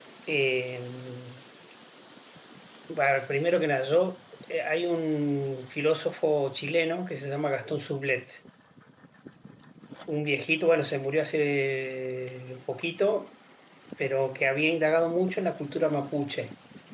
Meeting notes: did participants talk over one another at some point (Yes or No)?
No